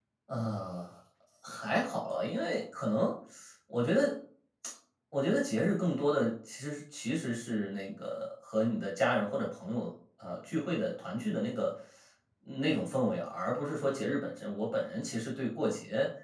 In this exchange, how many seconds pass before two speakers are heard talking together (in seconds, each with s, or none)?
none